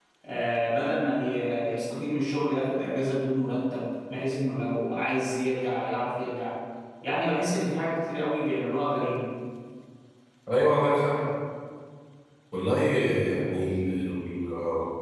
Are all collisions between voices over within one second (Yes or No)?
Yes